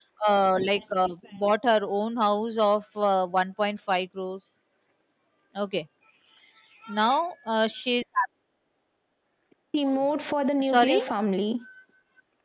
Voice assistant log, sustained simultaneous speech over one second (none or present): none